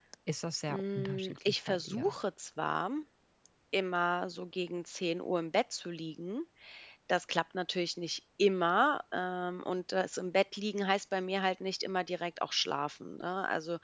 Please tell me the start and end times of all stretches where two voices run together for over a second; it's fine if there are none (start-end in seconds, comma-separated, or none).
0.7-2.1